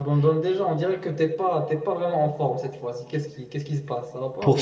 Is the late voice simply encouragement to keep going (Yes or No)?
No